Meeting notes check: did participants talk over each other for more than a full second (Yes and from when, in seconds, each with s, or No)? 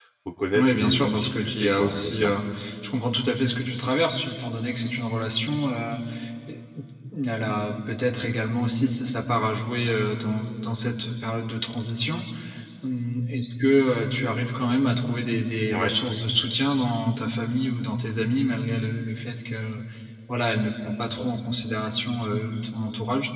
Yes, from 0.5 s